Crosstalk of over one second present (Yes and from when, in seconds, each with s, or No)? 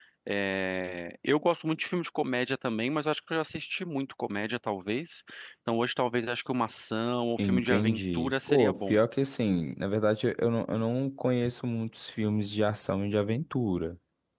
Yes, from 7.4 s